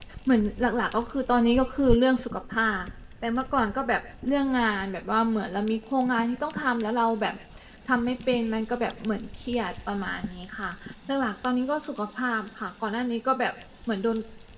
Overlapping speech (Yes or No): No